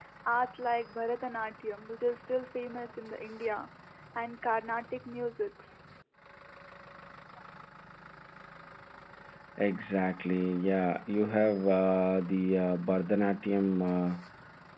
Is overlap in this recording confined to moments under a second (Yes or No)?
Yes